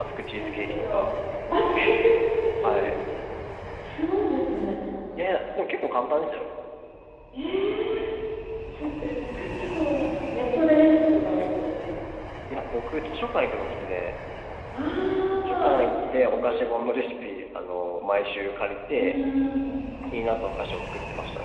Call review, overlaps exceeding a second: present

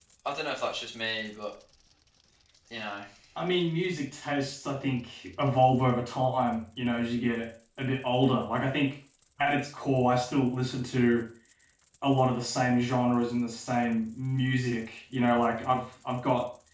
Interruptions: none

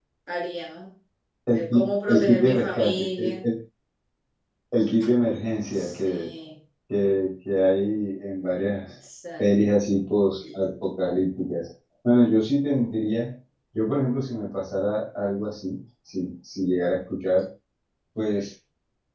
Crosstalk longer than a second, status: present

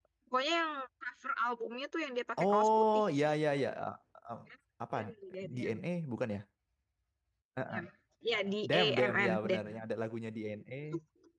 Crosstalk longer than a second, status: present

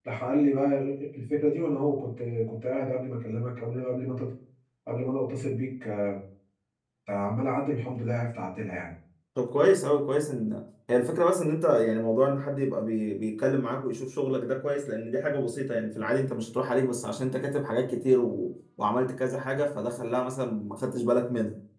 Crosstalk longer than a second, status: none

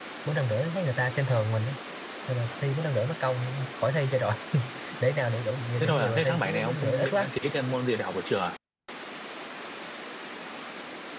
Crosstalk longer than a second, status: present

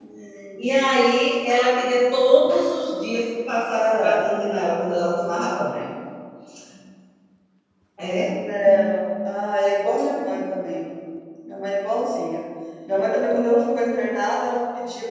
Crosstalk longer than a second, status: none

